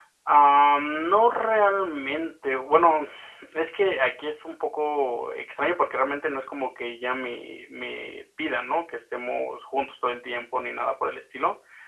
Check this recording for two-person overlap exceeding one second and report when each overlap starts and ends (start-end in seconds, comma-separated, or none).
none